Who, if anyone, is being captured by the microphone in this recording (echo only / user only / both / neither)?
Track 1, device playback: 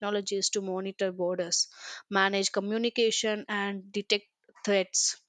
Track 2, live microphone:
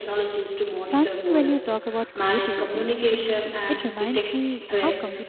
both